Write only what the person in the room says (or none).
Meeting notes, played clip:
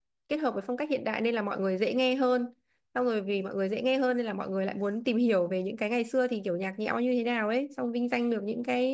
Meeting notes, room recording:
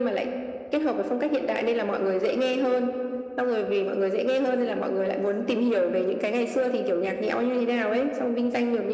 none